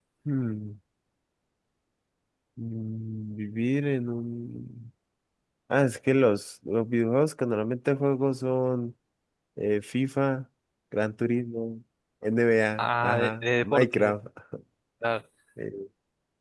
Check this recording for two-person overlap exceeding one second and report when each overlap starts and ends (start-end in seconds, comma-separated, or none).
12.8-14.1